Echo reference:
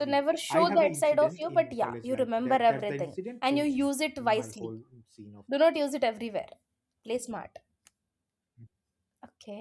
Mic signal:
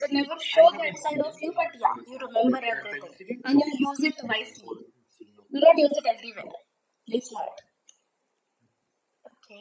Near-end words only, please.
none

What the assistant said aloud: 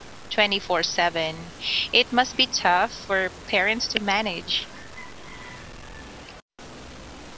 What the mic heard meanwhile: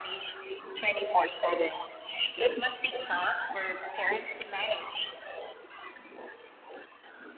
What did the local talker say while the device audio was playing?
none

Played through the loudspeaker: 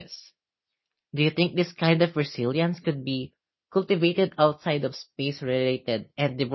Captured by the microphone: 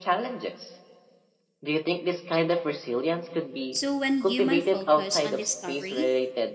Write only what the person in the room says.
So when human focus on discovery,

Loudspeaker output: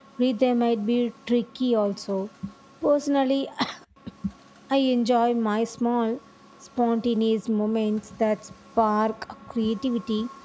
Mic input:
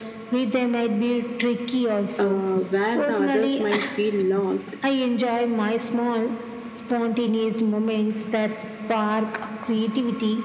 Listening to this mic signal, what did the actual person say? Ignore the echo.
uh, where the others might feel lost

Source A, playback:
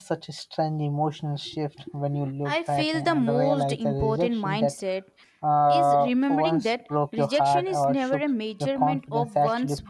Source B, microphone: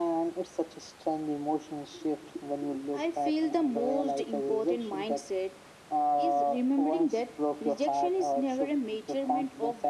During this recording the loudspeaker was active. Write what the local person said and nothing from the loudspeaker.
none

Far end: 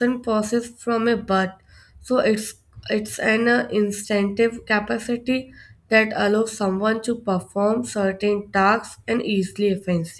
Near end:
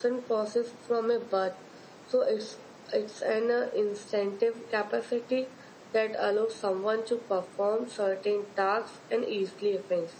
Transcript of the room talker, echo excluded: none

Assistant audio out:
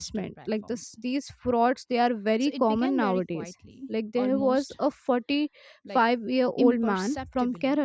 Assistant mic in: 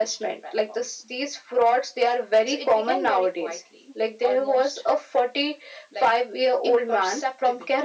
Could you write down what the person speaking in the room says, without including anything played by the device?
none

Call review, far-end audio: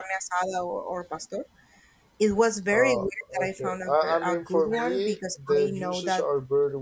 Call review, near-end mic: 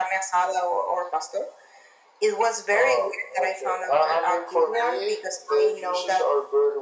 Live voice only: none

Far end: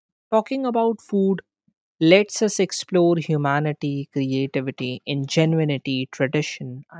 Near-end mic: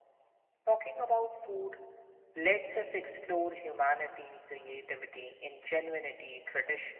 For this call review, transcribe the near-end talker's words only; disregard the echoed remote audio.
none

